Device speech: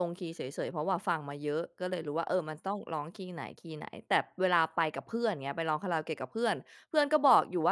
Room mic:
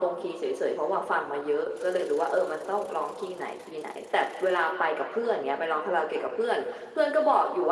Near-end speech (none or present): none